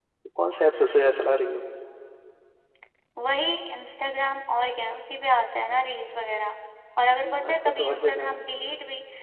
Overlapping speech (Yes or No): Yes